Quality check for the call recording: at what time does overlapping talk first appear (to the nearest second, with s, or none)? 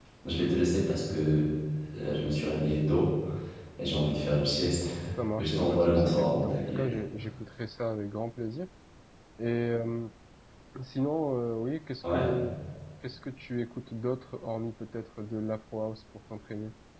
5 s